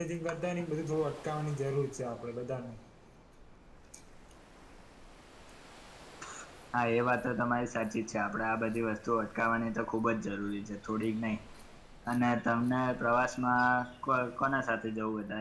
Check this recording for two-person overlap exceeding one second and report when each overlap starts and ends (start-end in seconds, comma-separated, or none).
none